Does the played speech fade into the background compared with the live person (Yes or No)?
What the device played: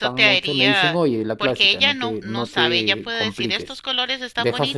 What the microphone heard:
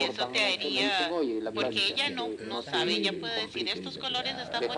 No